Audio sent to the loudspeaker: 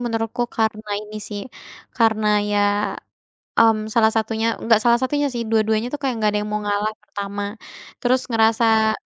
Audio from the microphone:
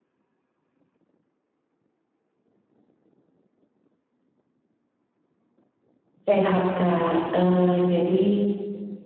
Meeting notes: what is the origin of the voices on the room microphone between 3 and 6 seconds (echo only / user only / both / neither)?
neither